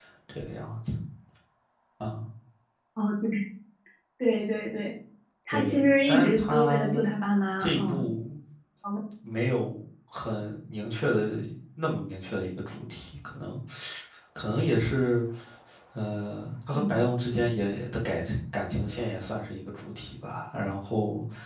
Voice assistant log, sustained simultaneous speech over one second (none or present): present